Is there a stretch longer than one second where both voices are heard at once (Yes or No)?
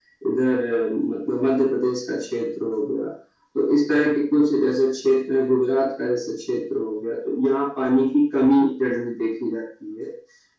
No